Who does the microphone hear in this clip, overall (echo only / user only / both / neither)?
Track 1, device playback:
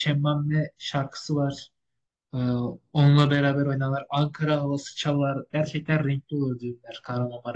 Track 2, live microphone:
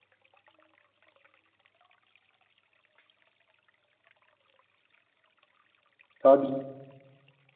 user only